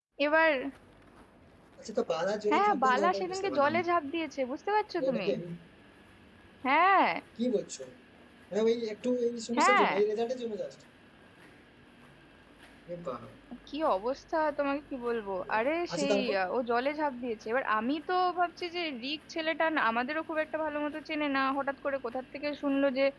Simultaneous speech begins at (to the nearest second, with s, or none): 3 s